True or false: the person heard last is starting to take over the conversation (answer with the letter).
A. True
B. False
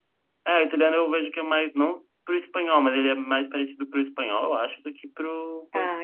B